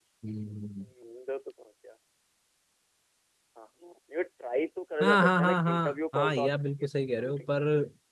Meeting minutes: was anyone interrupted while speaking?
Yes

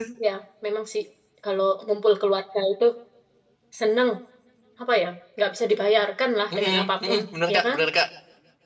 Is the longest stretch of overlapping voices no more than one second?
No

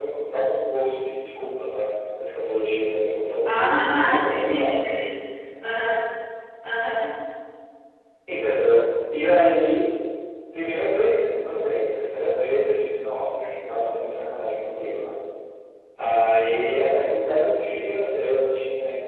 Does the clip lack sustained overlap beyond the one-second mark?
No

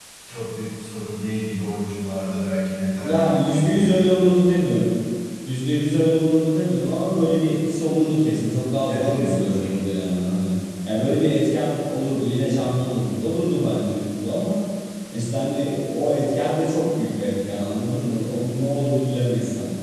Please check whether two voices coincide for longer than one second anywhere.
Yes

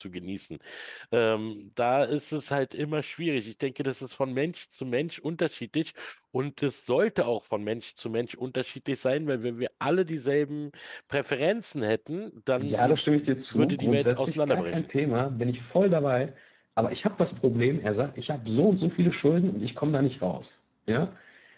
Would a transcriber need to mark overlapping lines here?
Yes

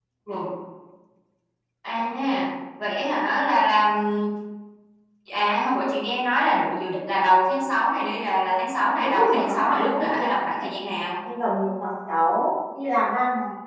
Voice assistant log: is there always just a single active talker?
No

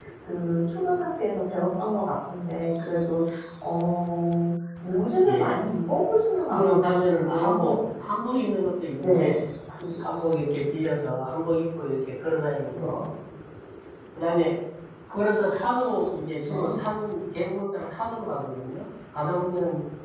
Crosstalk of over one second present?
Yes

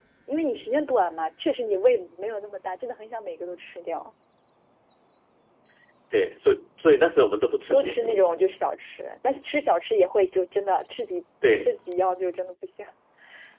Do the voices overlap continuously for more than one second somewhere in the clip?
No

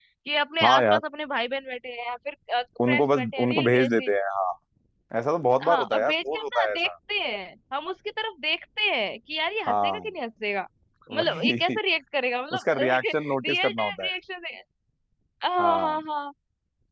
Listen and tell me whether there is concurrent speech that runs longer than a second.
Yes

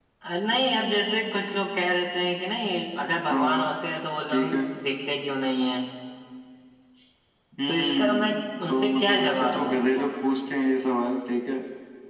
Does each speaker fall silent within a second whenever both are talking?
No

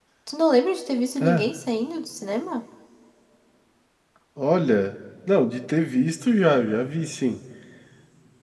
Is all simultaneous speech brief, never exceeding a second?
Yes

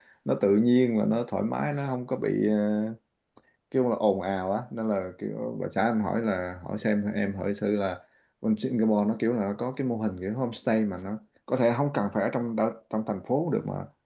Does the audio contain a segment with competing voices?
No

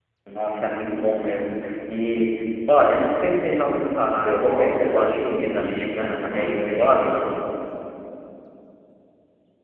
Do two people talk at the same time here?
Yes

